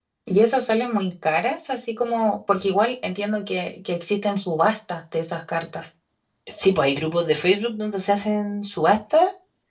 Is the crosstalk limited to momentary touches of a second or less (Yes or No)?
Yes